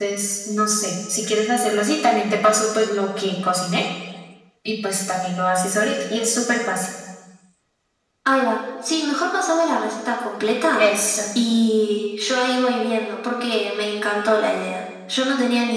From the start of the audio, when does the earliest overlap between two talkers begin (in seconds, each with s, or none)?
none